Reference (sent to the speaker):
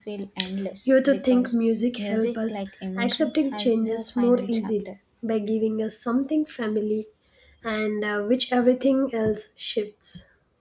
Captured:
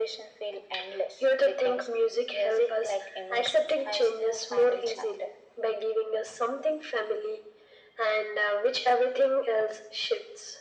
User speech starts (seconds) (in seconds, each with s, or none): none